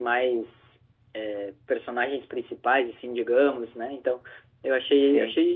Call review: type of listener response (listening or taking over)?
listening